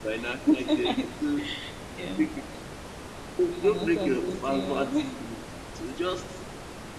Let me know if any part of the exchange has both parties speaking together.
Yes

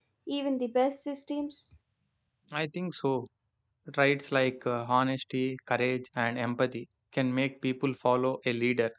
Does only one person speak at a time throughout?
Yes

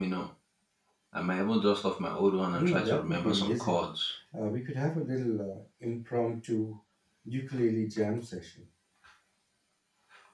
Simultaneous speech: Yes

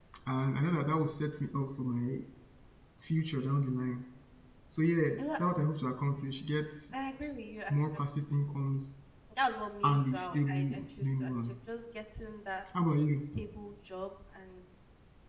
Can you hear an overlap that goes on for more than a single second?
Yes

